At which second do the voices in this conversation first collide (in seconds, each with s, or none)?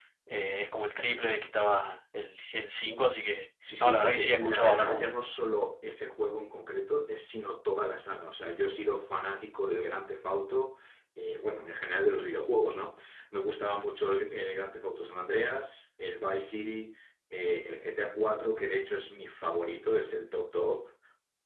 3.6 s